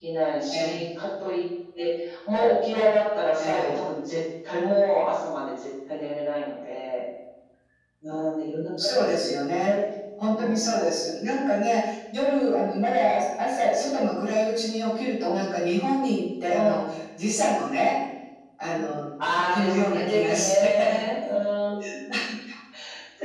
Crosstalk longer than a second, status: present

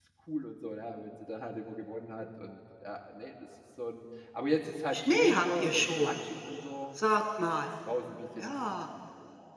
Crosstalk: present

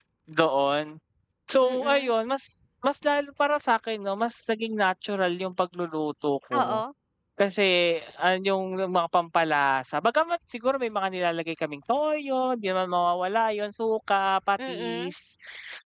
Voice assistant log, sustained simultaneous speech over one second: none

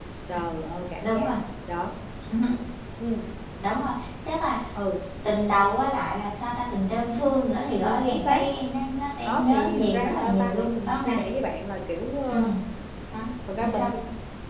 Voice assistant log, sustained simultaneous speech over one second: present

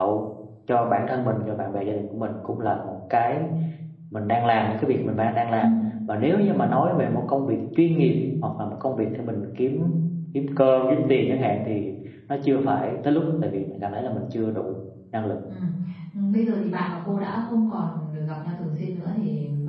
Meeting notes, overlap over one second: none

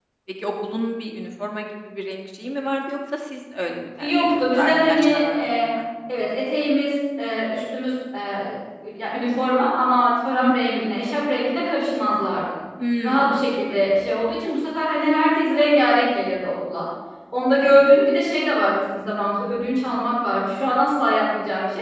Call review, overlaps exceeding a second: present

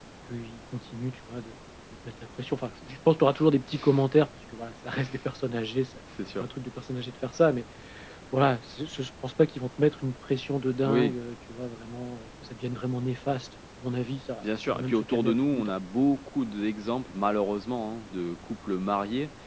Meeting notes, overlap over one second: present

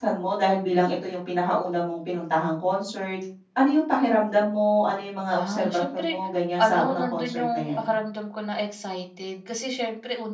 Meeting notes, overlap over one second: present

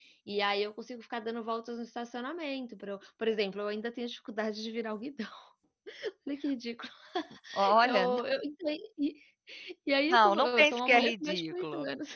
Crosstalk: present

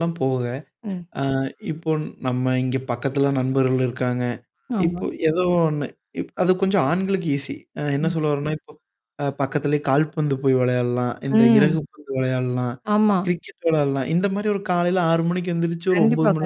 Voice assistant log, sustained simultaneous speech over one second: none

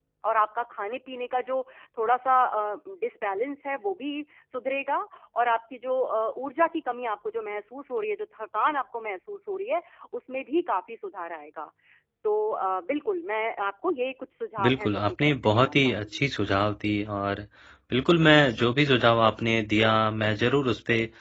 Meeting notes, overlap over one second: present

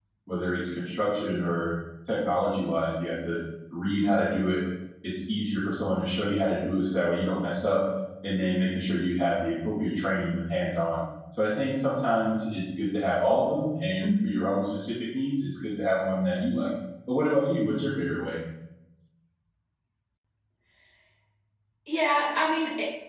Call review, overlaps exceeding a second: none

